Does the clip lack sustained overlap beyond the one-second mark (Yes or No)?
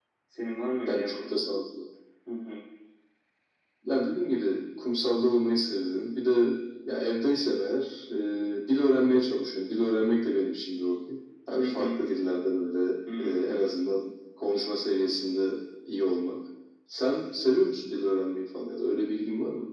Yes